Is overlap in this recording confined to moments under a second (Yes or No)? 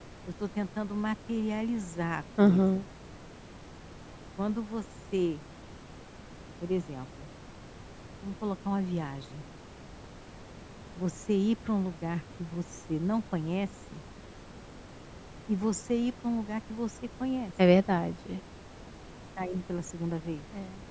Yes